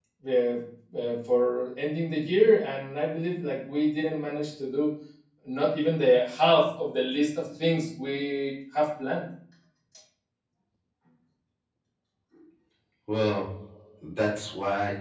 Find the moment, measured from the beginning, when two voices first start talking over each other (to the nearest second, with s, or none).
none